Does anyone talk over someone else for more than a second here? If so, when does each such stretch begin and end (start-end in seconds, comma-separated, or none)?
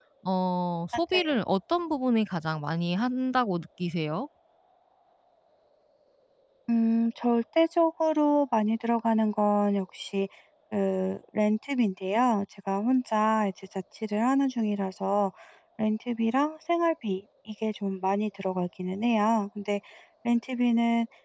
none